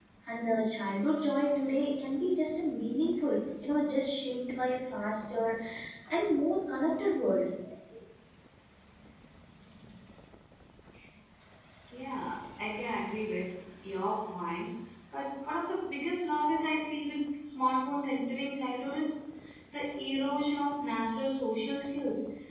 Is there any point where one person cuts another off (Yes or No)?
No